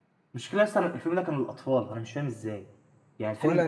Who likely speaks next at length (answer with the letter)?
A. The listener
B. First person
B